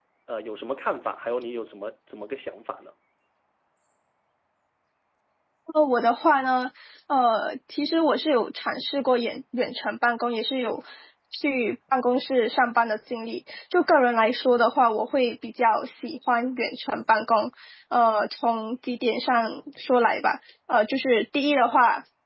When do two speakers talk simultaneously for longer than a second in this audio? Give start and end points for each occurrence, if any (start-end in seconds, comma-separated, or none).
none